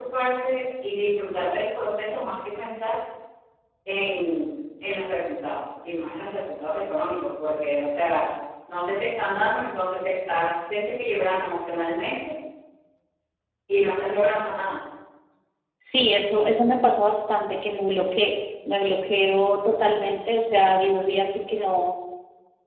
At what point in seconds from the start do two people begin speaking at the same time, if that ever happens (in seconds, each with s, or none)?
none